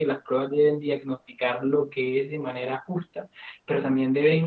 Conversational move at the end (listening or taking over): listening